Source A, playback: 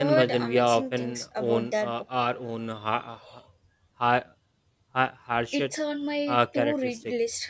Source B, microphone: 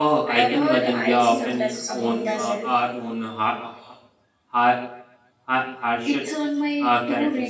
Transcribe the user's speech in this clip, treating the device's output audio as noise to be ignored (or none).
I sometimes treat myself,